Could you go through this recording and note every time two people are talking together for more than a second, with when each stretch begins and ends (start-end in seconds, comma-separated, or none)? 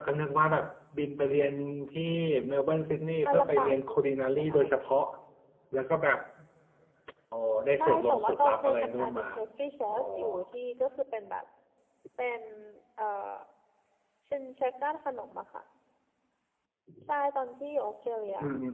3.3-4.9, 7.8-9.2